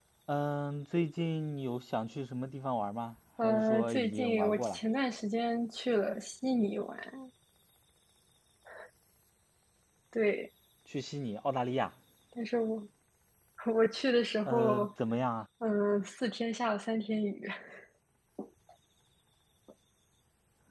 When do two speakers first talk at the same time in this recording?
3.4 s

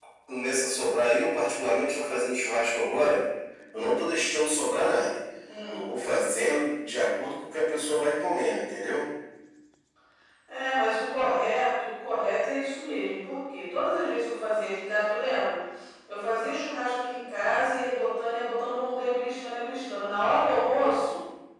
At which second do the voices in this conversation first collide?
none

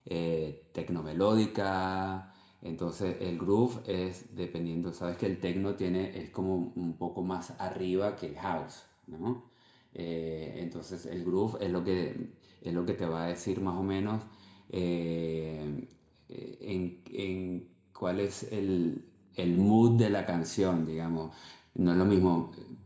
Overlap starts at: none

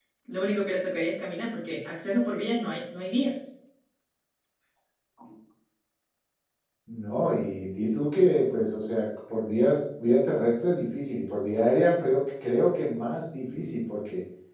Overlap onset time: none

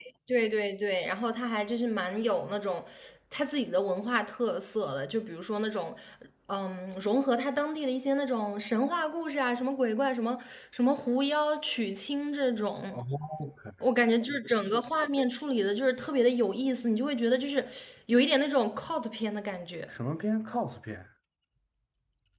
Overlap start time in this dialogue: none

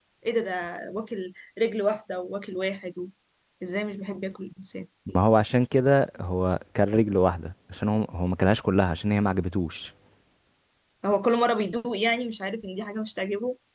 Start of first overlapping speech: none

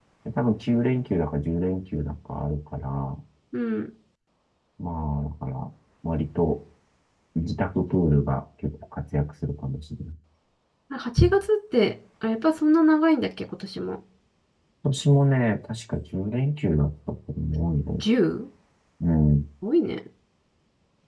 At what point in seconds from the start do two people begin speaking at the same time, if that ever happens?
none

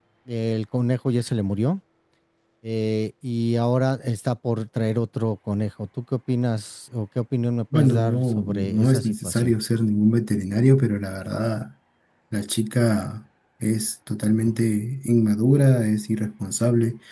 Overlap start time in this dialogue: 7.7 s

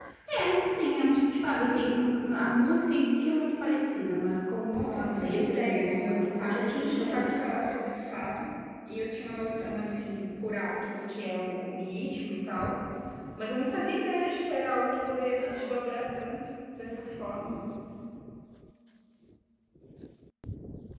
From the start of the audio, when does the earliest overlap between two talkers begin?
4.6 s

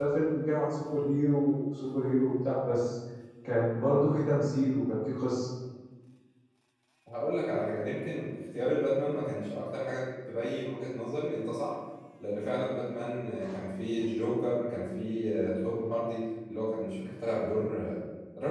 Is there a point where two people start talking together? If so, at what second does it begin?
none

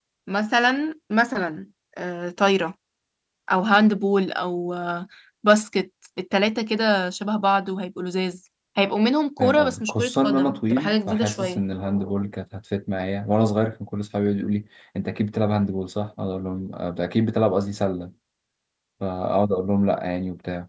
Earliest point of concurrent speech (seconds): 9.4 s

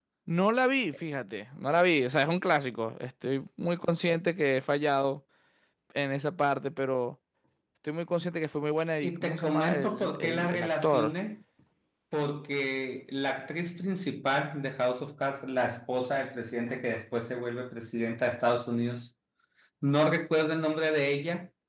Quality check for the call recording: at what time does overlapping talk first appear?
9.0 s

